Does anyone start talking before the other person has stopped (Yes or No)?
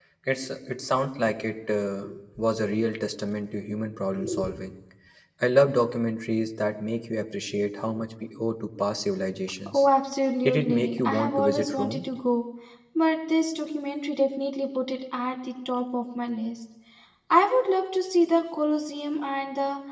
Yes